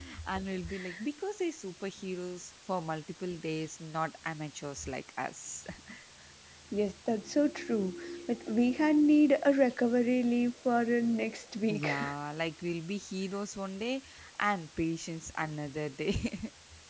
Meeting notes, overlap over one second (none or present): none